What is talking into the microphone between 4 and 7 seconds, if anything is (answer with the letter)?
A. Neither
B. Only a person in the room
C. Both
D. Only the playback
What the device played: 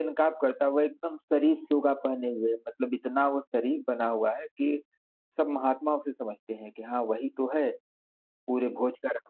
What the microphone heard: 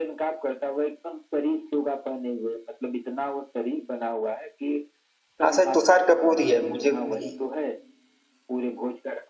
C